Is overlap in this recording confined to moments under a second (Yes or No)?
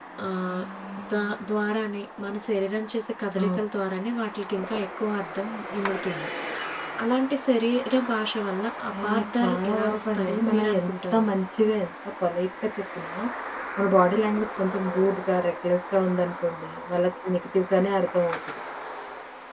No